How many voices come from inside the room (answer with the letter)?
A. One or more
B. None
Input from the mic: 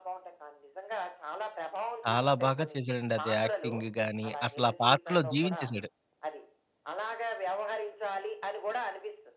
A